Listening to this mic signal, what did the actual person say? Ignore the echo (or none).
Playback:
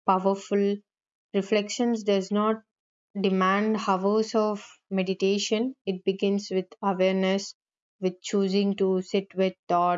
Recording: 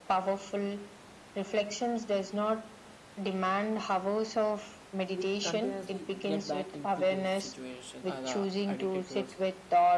we continuously get back into those situations are uh, addicted towards